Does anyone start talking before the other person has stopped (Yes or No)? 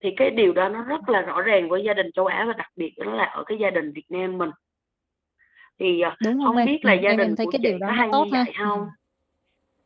Yes